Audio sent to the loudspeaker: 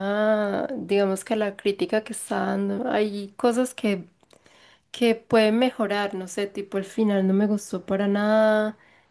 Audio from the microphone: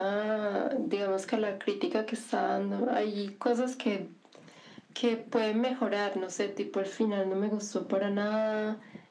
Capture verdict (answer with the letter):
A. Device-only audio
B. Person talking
A